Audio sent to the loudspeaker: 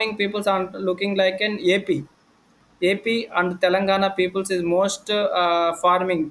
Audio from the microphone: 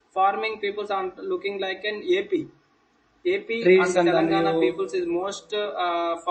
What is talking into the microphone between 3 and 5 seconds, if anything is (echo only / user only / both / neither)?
both